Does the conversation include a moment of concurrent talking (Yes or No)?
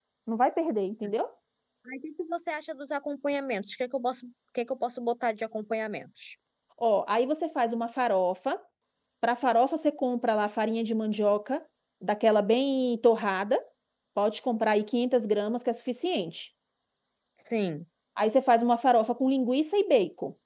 No